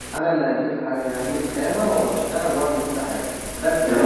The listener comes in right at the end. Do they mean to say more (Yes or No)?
Yes